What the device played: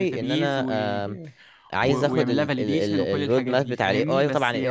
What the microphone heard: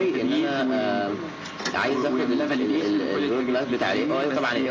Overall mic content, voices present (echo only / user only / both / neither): echo only